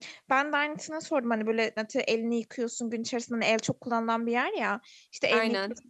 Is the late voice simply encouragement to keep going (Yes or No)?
Yes